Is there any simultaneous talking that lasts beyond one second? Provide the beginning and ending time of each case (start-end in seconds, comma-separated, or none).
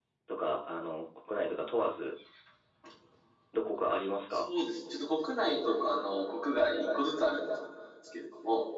none